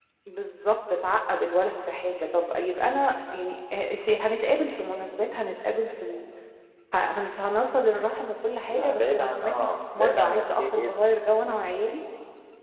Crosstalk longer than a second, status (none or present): present